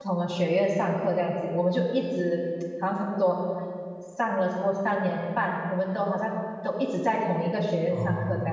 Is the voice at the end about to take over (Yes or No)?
Yes